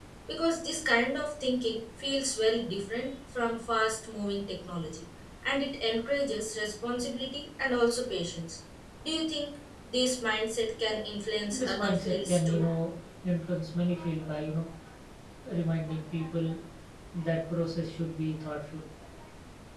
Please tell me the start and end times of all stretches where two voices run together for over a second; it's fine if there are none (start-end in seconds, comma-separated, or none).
11.5-12.7